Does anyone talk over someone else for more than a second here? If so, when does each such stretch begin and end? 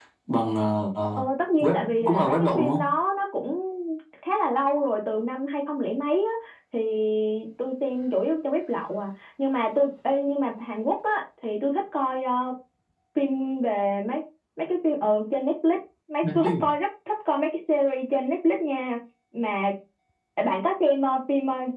1.6-2.8

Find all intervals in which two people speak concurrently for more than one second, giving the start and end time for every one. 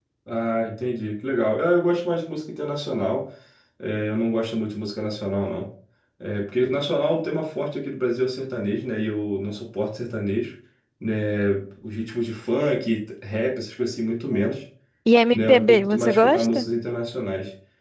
15.3-16.6

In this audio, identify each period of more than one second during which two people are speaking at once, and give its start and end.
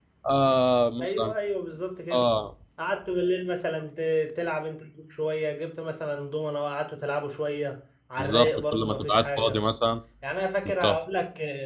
8.2-9.6

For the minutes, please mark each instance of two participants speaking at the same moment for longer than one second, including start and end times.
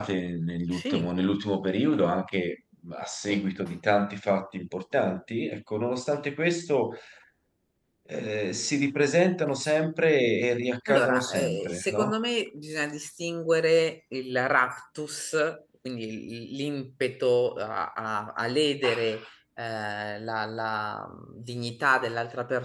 10.9-12.1

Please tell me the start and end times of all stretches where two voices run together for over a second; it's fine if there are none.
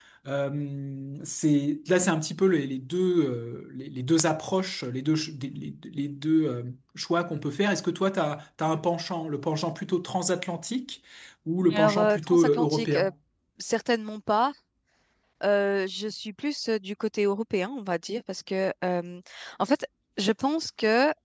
11.7-13.1

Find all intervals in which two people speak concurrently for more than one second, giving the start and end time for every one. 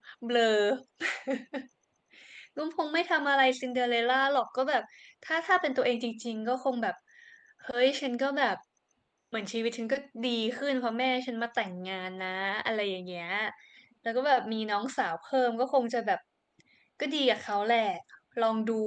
none

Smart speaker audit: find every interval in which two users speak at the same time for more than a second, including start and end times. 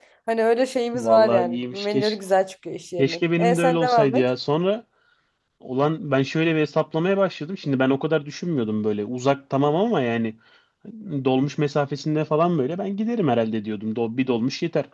0.9-2.1, 3.0-4.2

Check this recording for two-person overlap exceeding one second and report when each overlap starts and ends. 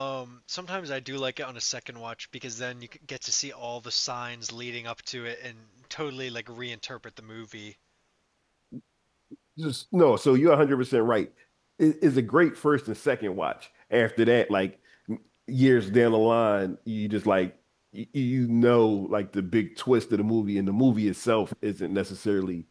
none

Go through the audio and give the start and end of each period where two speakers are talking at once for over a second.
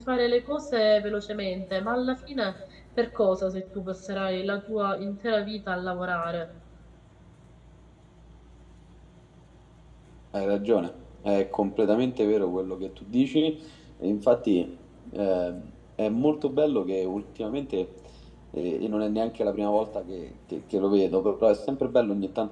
none

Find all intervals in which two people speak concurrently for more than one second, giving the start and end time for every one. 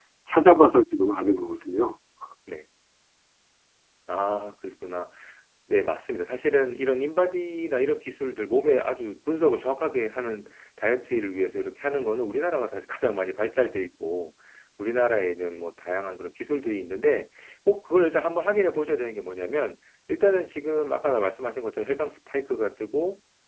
none

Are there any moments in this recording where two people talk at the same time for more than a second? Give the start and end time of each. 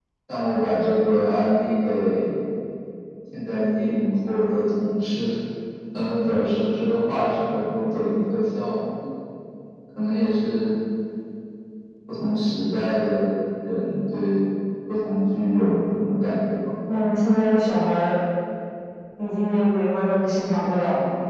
none

